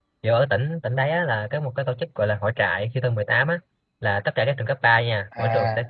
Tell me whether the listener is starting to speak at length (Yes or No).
No